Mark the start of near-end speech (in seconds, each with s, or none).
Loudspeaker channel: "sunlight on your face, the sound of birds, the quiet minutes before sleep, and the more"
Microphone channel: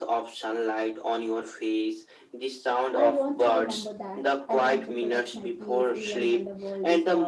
2.9 s